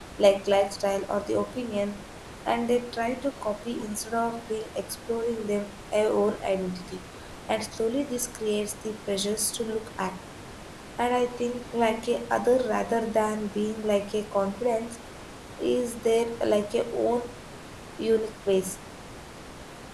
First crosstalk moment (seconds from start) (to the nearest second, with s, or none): none